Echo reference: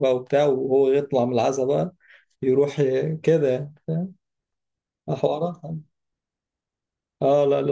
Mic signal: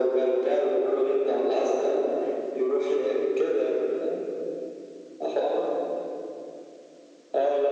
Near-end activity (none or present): none